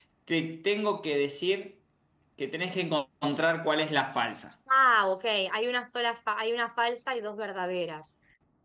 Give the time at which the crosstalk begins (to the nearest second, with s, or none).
none